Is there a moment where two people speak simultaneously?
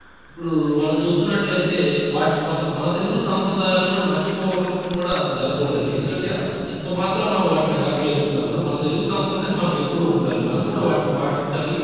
No

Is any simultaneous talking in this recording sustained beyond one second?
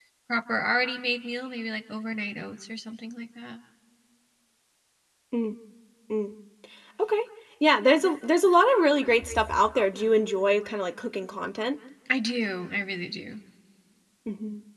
No

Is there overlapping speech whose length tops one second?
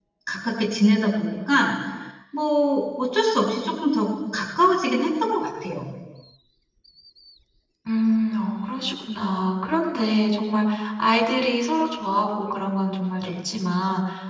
No

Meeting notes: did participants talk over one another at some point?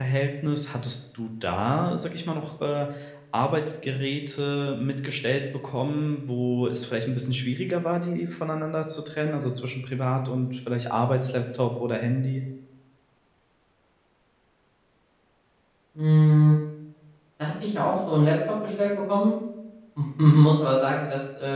No

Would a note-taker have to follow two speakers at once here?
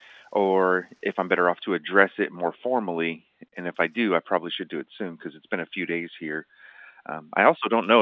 No

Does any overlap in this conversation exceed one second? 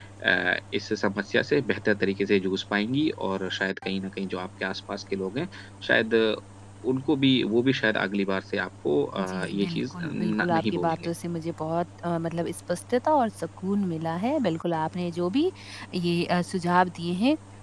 Yes, from 9.2 s

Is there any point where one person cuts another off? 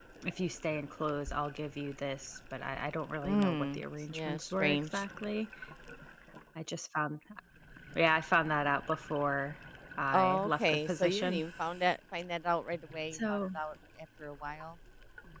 Yes, from 3.2 s

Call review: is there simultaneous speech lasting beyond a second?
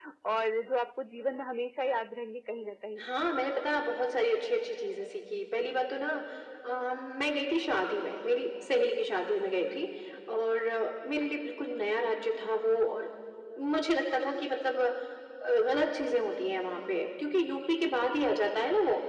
No

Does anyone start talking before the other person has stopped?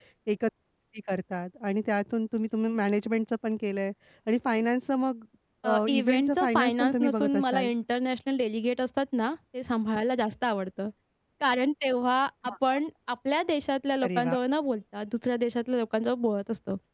Yes, from 5.7 s

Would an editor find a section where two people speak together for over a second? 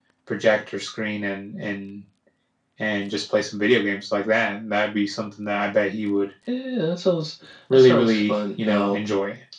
Yes, from 7.7 s

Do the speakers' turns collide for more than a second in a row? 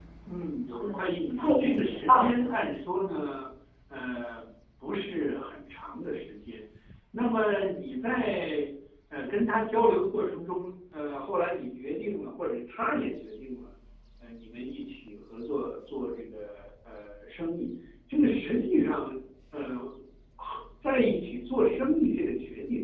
Yes, from 0.7 s

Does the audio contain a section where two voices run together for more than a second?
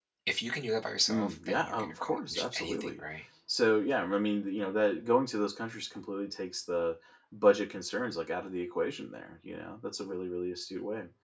Yes, from 1.1 s

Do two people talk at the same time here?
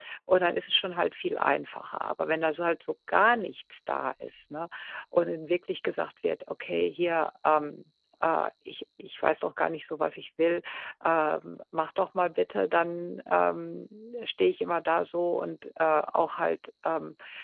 No

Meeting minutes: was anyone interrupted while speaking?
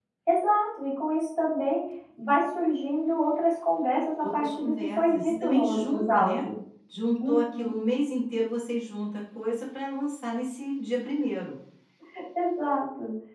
Yes, from 4.2 s

